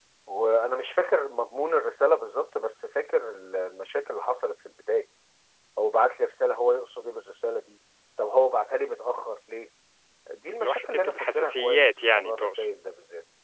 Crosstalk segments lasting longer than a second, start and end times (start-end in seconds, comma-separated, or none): 10.6-12.6